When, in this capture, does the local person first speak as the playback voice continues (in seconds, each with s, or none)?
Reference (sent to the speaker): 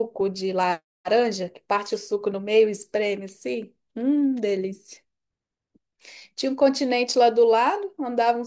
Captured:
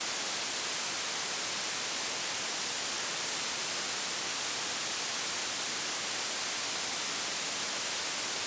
none